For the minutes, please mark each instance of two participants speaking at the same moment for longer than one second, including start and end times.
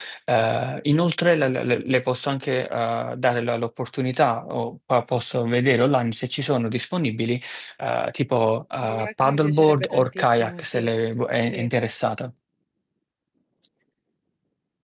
8.8-10.8

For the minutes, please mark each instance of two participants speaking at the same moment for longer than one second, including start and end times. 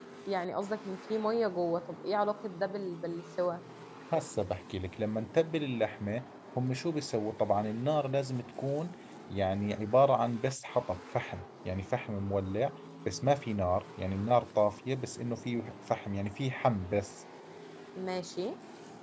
none

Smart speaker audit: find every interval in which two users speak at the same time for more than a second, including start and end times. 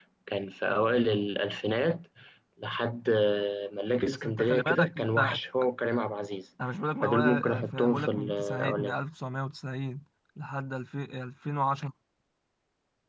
4.1-5.4, 7.0-8.9

